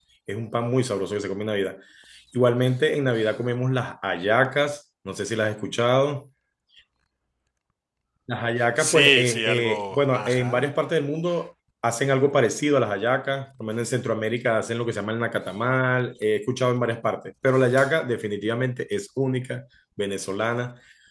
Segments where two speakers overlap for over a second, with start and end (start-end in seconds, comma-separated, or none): 8.8-10.6